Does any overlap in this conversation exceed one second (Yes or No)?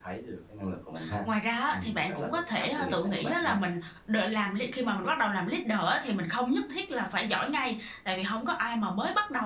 Yes